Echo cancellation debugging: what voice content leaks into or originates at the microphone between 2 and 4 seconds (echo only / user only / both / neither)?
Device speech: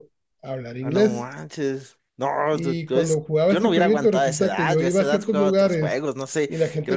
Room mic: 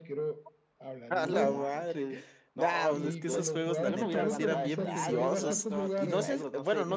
both